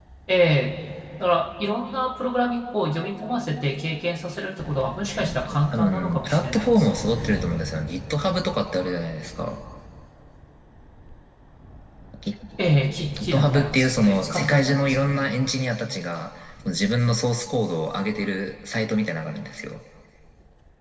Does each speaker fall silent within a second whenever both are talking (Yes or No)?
No